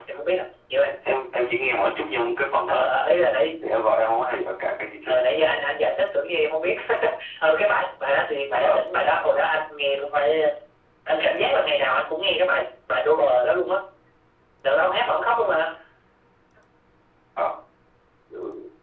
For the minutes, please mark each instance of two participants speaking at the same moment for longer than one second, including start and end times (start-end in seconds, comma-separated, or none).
none